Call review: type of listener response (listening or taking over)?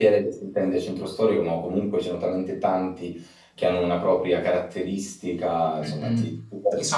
taking over